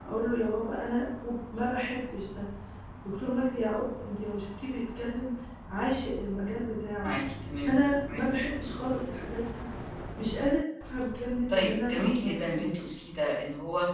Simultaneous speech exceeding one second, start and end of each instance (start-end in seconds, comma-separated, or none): 11.5-13.0